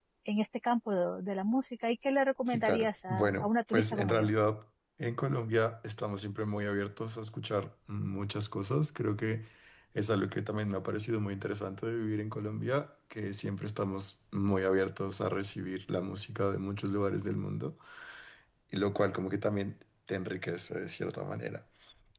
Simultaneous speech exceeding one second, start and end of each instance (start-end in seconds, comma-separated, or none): 2.5-4.3